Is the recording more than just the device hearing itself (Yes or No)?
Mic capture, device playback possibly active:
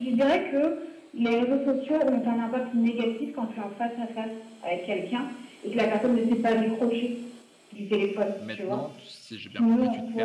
Yes